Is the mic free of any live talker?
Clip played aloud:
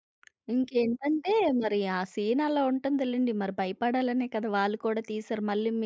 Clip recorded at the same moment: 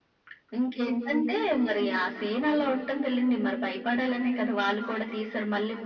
Yes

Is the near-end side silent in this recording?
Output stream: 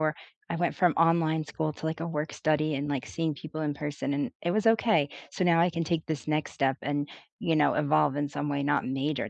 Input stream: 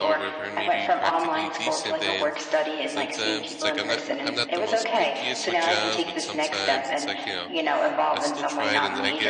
No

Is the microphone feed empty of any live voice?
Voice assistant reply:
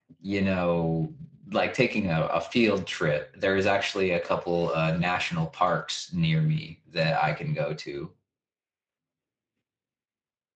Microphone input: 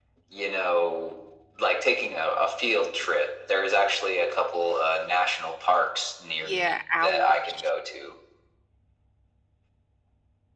No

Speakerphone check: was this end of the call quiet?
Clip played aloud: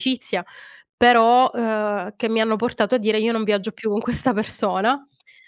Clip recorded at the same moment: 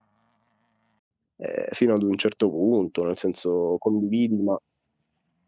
No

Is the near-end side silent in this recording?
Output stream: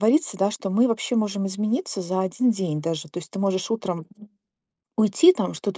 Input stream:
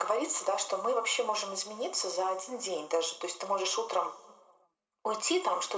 Yes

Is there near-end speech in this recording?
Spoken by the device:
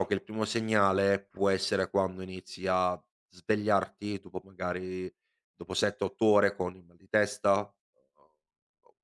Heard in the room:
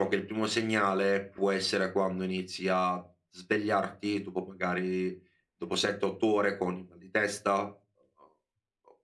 No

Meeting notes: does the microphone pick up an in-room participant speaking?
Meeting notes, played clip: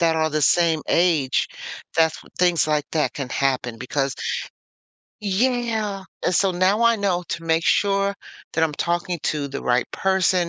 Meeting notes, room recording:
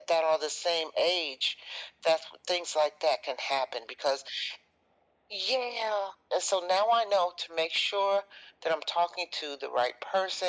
No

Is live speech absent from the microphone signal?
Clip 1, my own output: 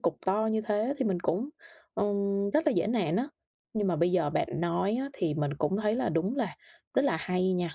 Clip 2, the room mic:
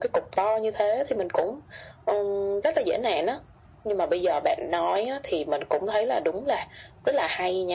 Yes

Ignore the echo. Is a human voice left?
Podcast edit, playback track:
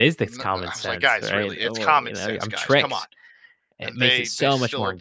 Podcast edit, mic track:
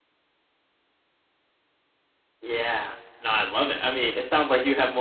Yes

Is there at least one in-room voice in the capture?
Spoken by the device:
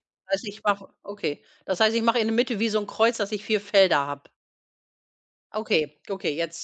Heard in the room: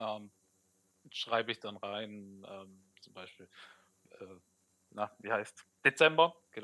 Yes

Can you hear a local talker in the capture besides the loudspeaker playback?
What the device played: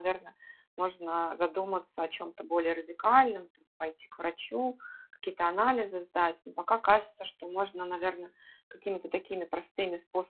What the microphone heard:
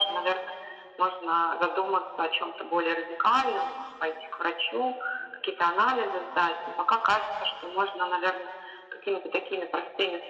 No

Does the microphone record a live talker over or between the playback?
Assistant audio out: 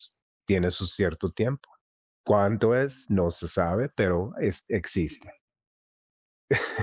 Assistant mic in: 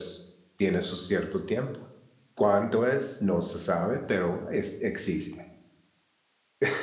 No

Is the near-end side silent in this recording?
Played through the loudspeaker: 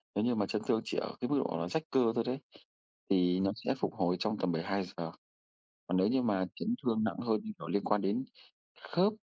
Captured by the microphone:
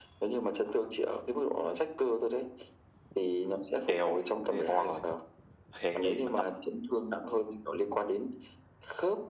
No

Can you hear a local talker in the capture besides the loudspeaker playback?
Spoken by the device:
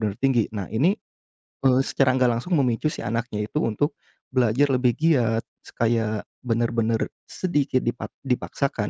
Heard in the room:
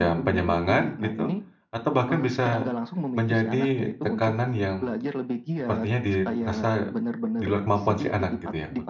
Yes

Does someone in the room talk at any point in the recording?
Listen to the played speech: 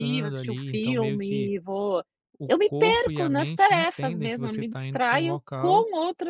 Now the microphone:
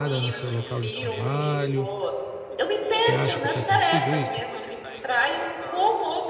Yes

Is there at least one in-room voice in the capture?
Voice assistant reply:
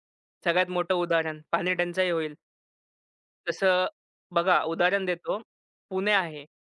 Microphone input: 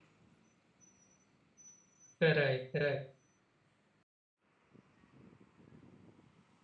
Yes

